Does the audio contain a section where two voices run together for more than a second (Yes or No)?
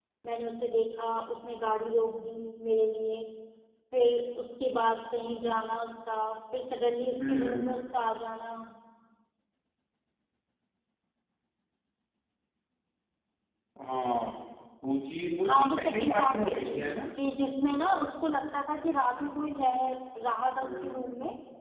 Yes